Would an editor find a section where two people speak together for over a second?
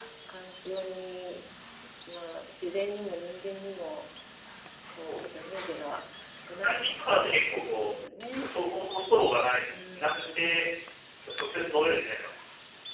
Yes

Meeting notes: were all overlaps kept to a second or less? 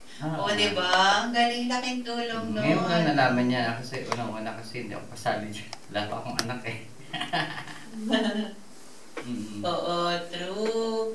No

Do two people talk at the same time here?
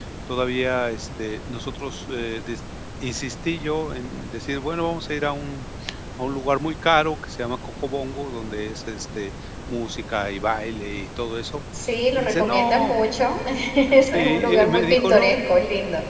Yes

